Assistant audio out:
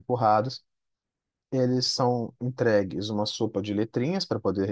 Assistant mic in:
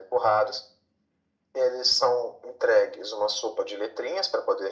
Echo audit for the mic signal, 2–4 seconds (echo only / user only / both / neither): echo only